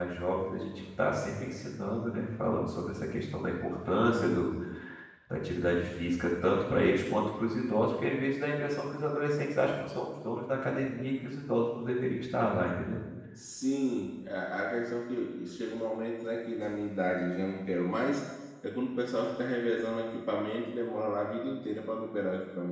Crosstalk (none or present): none